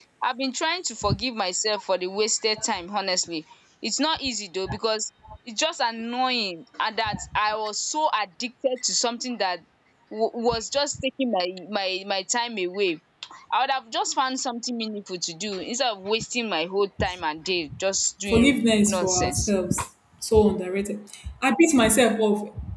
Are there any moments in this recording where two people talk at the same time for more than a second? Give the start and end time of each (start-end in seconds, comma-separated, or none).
18.3-19.5